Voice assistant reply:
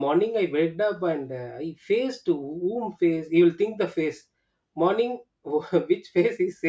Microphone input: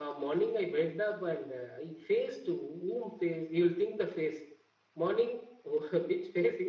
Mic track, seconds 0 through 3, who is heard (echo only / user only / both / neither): echo only